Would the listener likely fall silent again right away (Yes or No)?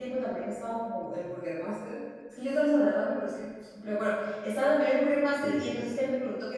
Yes